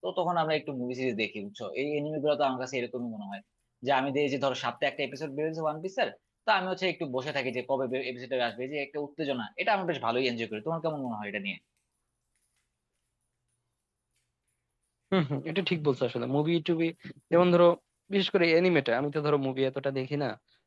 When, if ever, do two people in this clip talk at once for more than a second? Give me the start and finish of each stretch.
none

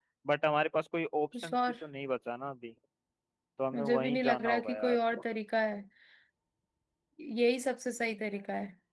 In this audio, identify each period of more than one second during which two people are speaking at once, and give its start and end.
3.7-5.0

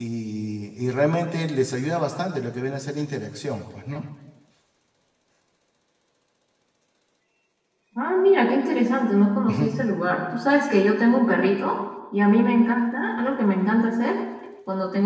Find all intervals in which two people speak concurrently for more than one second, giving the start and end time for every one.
none

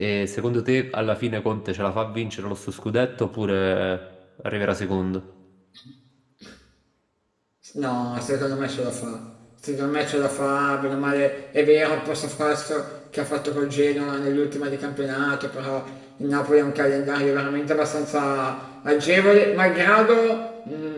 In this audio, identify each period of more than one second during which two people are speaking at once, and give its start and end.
none

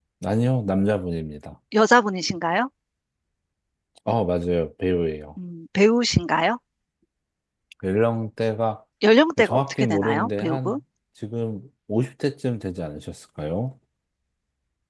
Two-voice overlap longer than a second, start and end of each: 9.4-10.8

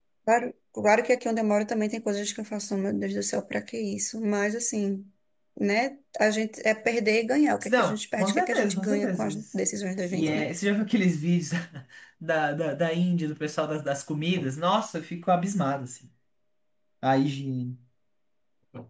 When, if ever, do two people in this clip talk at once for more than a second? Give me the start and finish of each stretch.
7.7-9.4

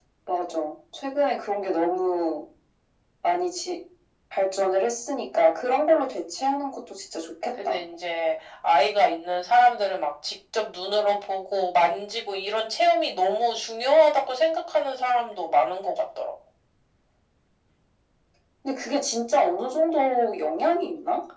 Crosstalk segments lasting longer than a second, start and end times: none

